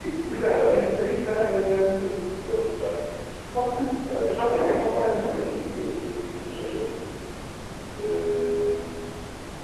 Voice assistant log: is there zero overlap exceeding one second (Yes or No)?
No